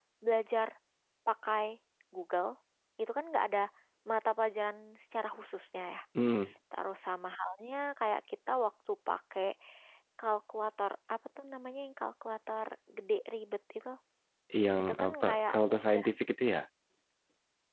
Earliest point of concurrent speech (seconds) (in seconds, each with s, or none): 14.8 s